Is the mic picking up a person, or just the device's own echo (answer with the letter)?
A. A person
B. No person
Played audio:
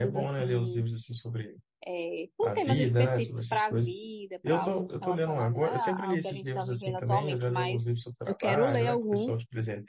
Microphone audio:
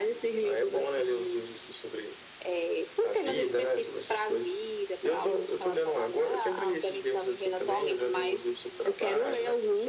B